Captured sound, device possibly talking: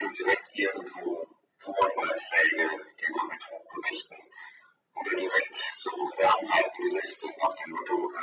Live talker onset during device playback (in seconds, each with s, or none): none